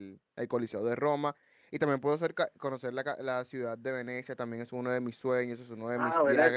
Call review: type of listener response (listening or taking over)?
taking over